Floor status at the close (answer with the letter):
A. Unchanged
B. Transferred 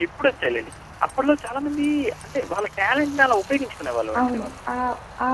B